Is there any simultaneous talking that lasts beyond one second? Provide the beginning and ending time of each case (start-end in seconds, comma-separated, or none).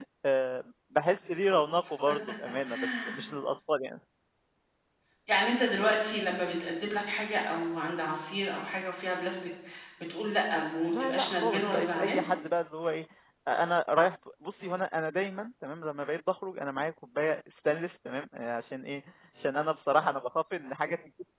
10.9-12.2